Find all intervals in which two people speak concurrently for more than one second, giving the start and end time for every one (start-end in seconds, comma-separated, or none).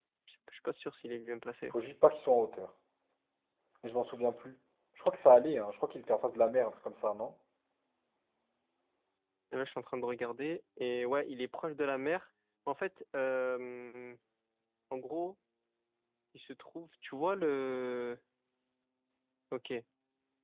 none